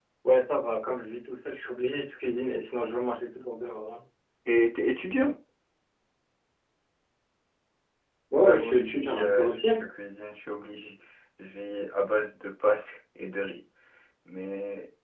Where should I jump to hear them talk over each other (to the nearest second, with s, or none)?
8 s